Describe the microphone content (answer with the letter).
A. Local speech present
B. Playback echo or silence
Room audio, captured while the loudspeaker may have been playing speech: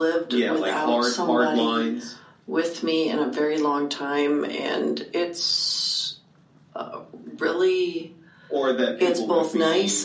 B